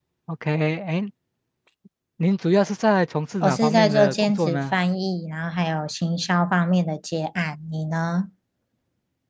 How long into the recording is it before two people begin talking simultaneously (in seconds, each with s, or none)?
3.4 s